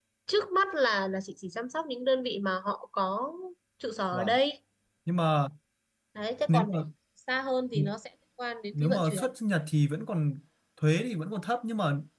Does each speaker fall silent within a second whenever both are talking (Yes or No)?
Yes